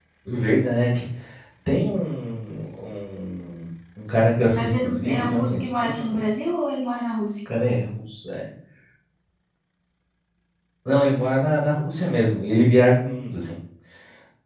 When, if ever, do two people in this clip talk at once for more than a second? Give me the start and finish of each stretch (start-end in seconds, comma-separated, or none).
4.5-6.2